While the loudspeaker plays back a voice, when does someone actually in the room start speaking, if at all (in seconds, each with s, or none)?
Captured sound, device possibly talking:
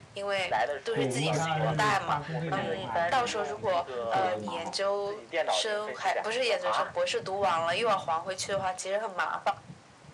0.9 s